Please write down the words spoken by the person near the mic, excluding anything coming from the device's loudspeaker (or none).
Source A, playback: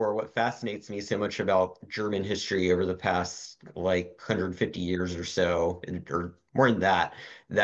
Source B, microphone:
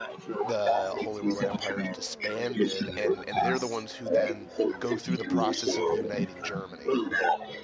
the Holy Roman Empire is disbanded, and, and they're the ones who then go through the process of uniting Germany.